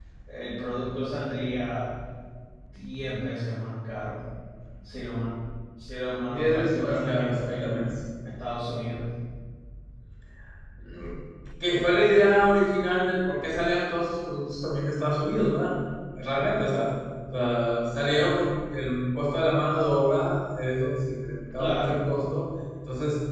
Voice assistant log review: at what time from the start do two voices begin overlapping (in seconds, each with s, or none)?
6.3 s